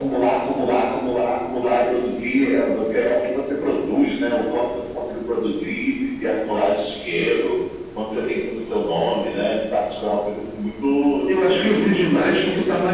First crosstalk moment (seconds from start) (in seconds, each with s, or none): 11.3 s